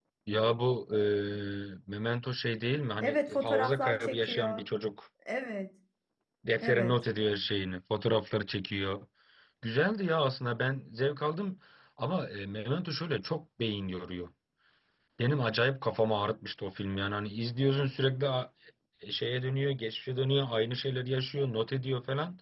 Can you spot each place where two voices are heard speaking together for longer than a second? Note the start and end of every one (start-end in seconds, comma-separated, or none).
3.0-4.6